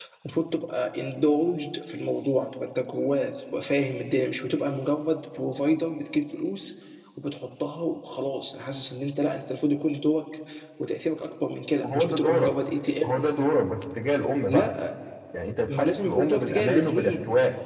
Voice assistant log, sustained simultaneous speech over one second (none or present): present